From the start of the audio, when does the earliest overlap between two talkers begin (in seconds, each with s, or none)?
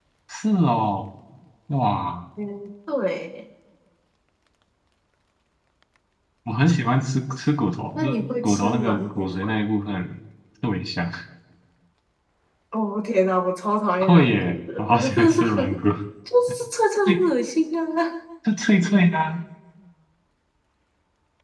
8.0 s